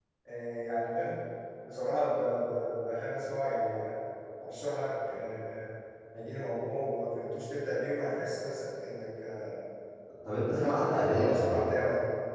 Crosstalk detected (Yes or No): Yes